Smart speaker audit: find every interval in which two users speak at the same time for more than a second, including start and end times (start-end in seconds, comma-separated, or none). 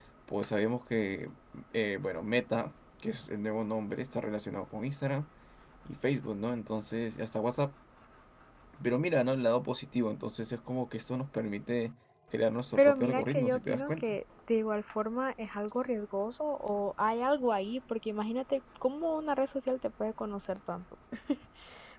12.8-14.2